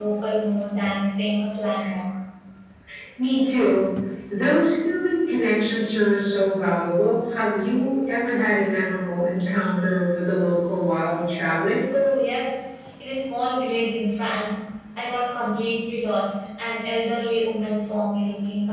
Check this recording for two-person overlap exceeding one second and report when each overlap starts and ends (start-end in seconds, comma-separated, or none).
none